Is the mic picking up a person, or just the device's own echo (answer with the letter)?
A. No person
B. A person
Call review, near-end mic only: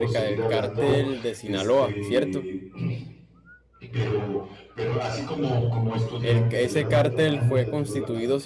B